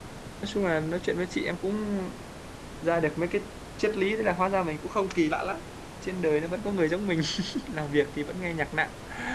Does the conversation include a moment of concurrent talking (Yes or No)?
No